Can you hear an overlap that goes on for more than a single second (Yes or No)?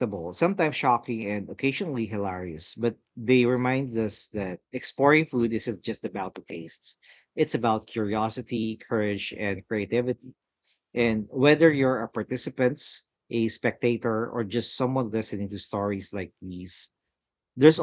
No